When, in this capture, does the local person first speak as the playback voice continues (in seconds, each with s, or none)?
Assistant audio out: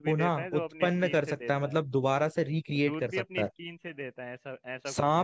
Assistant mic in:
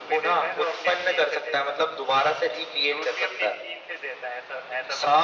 none